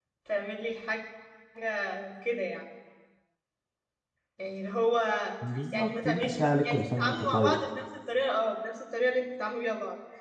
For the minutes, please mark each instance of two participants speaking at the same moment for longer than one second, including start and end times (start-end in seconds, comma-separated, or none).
5.7-7.6